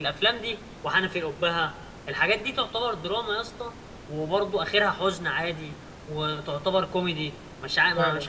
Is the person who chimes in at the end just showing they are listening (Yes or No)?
No